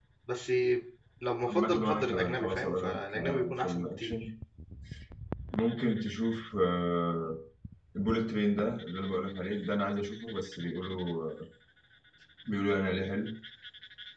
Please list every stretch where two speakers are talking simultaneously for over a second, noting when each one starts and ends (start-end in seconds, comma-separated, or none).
1.5-4.2